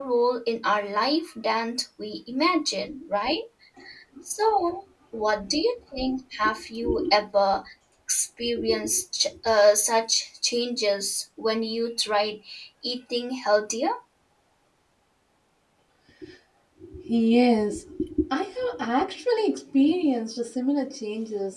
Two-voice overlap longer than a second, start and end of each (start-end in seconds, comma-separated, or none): none